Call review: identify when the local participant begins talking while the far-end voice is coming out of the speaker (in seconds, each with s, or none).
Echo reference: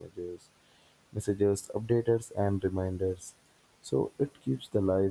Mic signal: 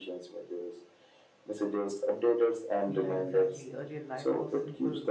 2.9 s